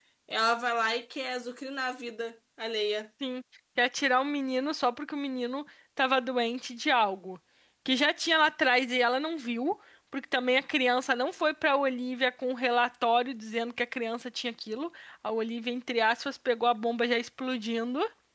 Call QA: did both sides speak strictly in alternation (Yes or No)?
Yes